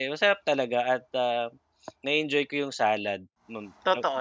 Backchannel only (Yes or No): No